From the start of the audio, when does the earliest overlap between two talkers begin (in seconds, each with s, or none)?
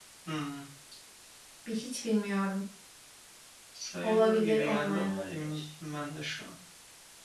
4.0 s